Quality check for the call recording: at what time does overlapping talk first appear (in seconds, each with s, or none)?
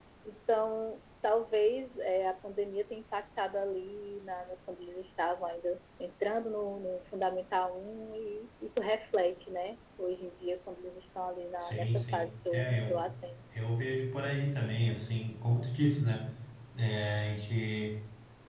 11.6 s